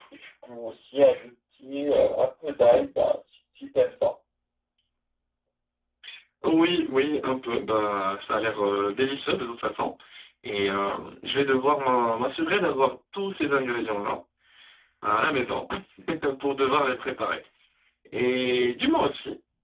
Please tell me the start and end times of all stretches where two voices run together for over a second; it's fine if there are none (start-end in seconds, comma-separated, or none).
none